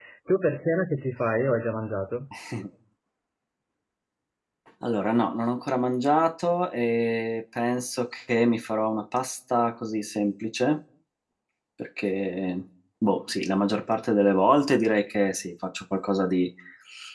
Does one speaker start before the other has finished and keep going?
No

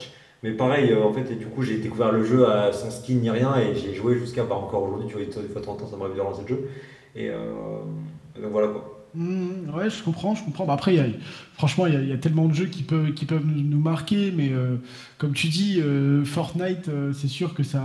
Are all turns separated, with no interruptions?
Yes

